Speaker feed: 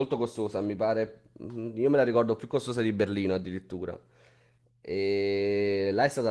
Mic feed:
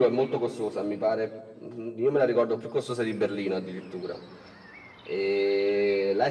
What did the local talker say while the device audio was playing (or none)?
none